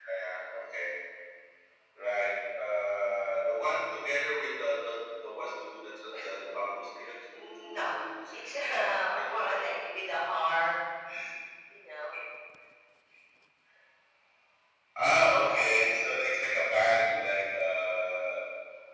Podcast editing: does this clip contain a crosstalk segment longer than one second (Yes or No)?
Yes